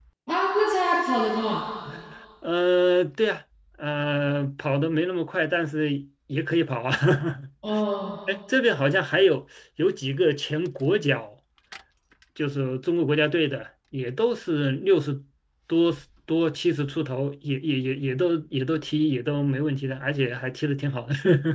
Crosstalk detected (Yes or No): No